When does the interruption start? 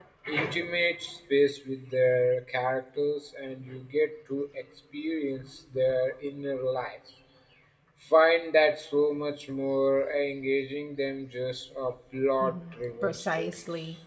12.4 s

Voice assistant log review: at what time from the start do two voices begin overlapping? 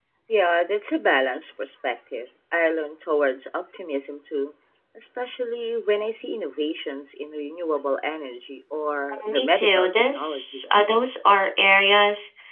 9.2 s

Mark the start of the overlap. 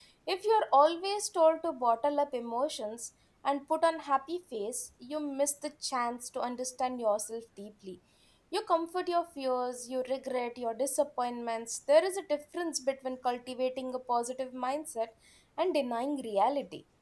none

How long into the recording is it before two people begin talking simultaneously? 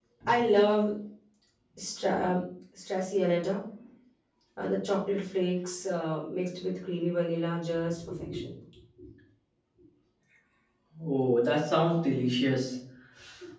none

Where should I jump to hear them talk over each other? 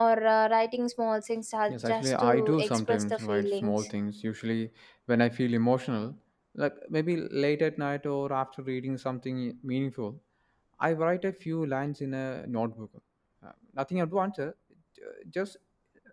1.7 s

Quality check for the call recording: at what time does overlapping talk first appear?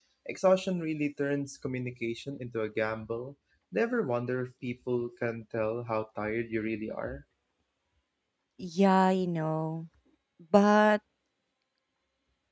none

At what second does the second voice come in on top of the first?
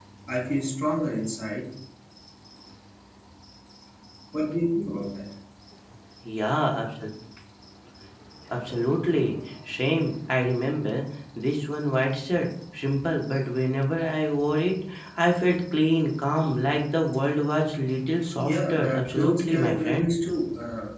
18.4 s

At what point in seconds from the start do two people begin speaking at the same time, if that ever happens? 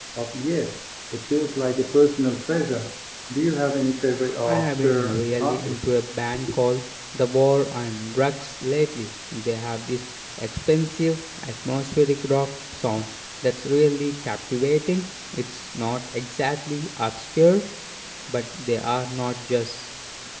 4.5 s

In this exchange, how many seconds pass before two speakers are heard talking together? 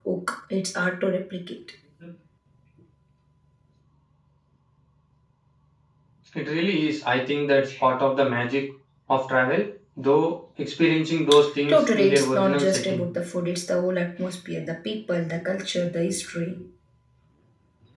11.7 s

